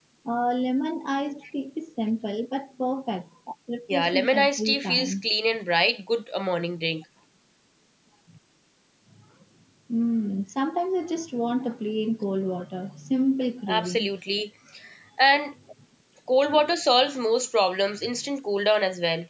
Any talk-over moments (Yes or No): Yes